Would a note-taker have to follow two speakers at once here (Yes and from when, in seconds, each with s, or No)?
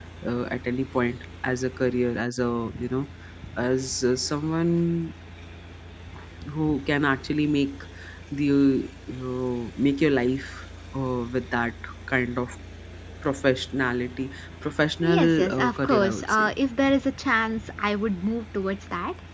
Yes, from 15.0 s